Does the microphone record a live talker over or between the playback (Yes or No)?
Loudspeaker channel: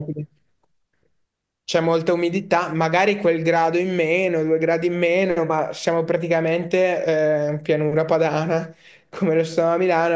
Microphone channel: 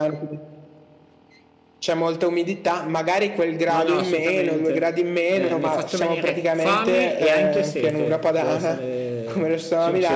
Yes